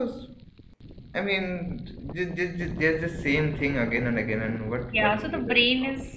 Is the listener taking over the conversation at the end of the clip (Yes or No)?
Yes